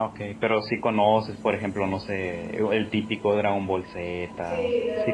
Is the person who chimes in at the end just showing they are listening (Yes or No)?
No